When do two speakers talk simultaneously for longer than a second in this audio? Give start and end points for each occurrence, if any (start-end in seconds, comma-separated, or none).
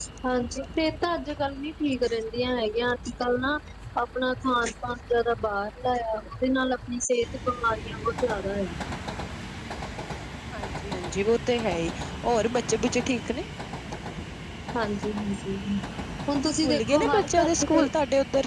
16.6-17.9